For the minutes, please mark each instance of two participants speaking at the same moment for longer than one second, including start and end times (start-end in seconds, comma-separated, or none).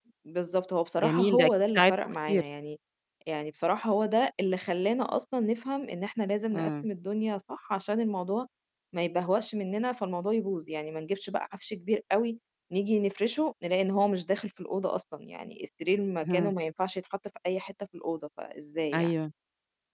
1.0-2.4